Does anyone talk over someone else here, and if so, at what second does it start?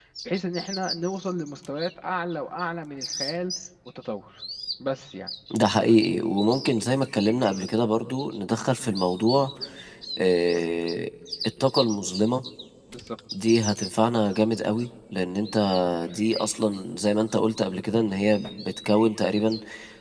none

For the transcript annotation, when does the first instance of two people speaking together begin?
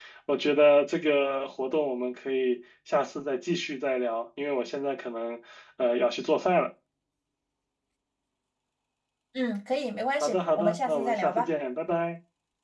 10.2 s

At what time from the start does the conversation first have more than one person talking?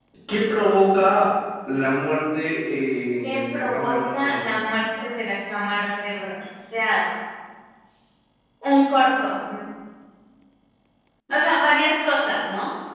3.2 s

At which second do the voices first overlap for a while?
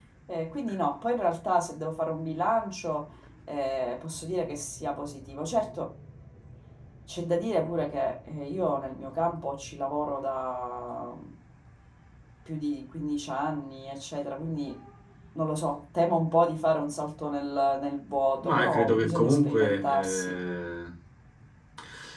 18.4 s

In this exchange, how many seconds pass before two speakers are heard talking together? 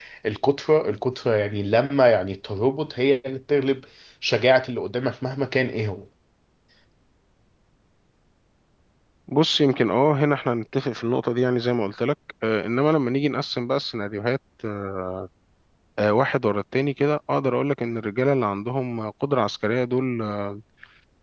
none

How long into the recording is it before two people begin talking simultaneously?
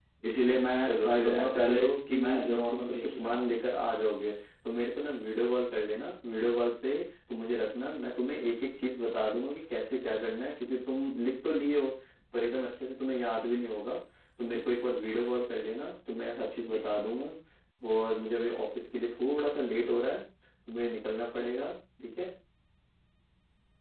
0.8 s

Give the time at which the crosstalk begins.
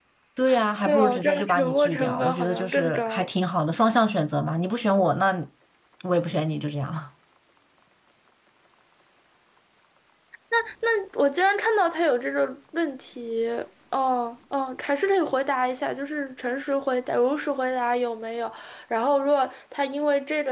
0.8 s

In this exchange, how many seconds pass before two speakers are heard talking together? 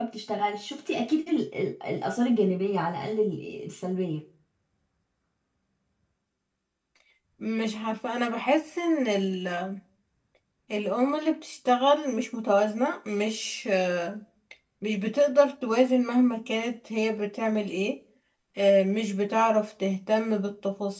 none

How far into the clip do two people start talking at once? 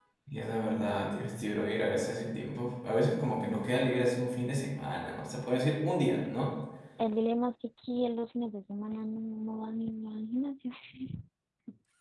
none

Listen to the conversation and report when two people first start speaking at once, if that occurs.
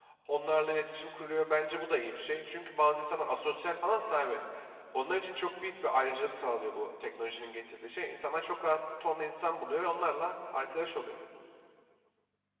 none

